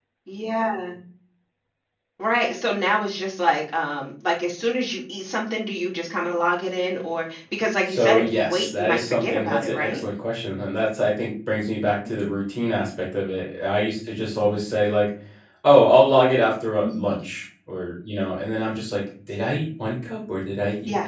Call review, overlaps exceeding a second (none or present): present